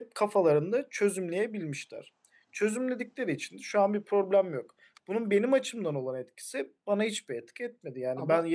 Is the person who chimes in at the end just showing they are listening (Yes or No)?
Yes